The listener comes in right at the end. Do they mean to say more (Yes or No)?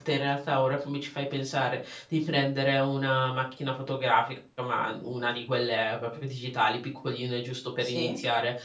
No